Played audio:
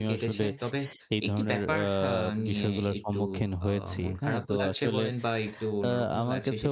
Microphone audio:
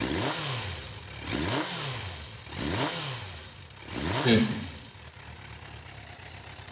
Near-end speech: present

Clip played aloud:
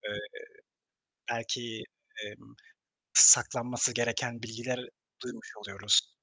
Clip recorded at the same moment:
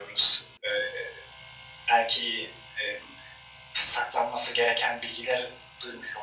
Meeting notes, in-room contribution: none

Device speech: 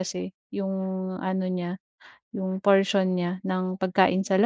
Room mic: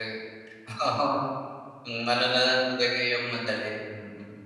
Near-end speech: present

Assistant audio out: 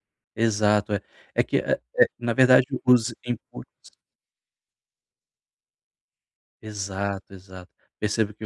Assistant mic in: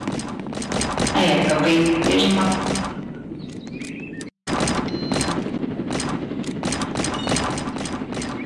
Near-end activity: present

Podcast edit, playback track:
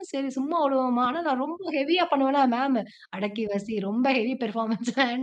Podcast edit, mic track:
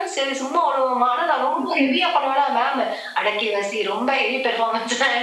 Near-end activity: present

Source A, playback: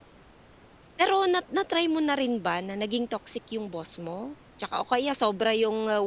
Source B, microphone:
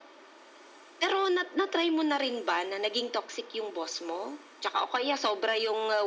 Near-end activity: none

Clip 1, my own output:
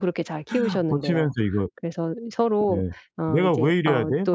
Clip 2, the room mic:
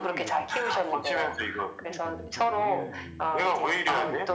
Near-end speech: present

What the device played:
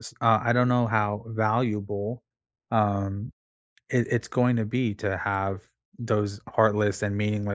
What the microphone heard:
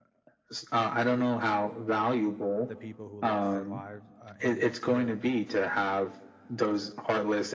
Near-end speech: present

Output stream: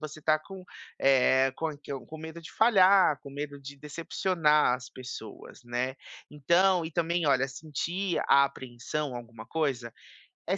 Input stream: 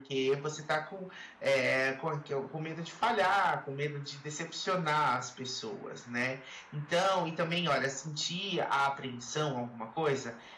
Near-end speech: none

